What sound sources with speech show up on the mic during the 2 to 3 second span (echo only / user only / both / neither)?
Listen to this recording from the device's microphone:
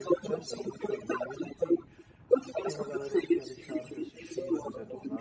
both